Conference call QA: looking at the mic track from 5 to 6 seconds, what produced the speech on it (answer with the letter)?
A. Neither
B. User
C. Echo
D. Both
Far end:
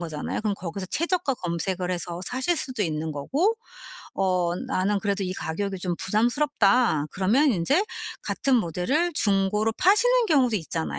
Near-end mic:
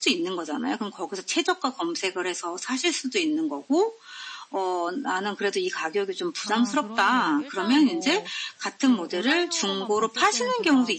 C